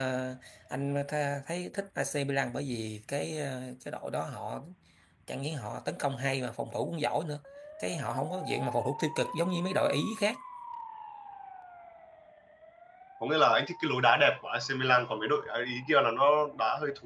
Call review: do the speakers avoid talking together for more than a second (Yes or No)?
Yes